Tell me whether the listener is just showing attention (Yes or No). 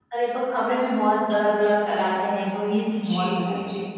No